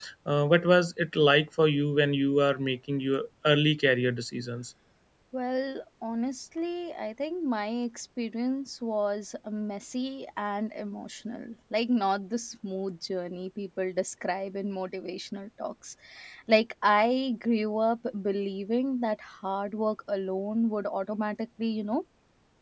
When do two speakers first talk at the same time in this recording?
none

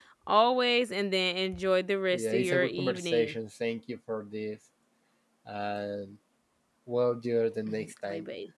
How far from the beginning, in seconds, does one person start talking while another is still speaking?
2.1 s

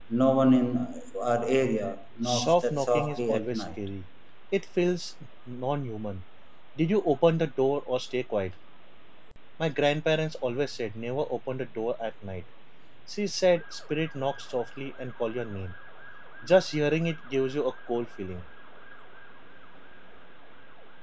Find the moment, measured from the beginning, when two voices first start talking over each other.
2.2 s

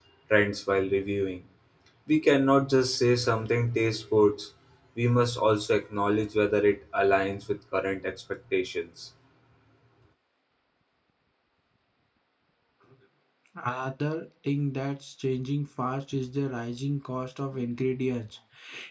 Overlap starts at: none

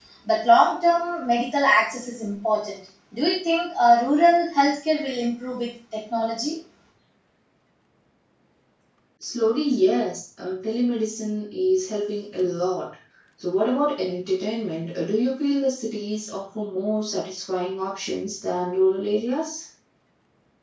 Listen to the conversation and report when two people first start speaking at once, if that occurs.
none

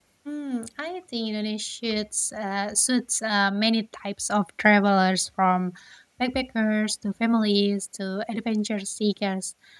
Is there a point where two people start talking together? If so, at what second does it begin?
none

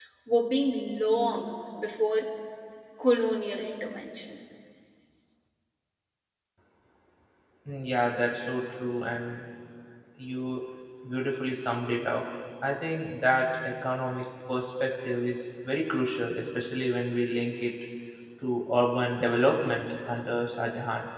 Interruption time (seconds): none

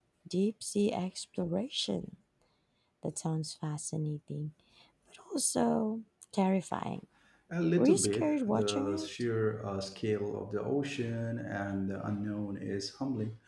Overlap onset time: 7.8 s

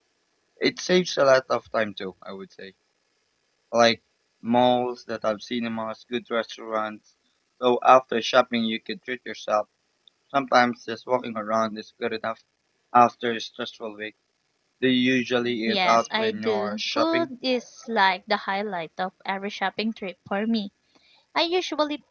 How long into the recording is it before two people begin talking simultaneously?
15.7 s

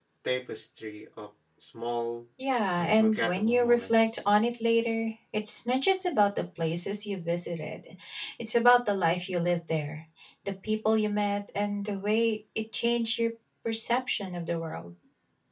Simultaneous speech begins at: 2.8 s

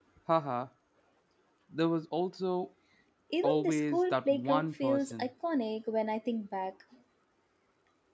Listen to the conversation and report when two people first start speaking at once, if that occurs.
3.4 s

